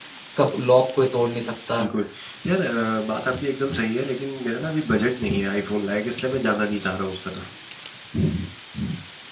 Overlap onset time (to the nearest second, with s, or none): none